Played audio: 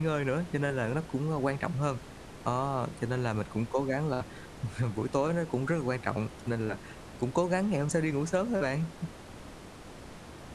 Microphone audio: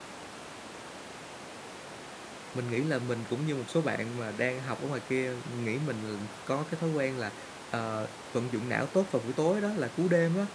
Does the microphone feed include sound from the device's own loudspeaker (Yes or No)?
No